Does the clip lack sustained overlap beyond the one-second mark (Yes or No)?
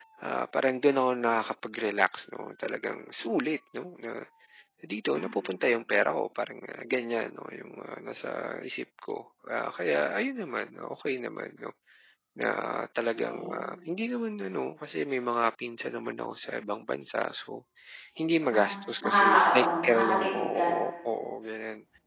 No